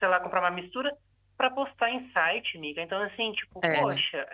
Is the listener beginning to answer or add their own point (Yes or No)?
No